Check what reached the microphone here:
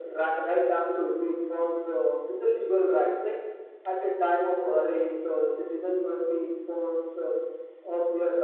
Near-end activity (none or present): none